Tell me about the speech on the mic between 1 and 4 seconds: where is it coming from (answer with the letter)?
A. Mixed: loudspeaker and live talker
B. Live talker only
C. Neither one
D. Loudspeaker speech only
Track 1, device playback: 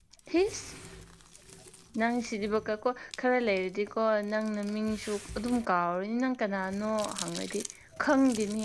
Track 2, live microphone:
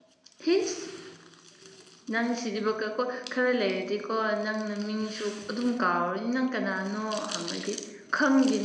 D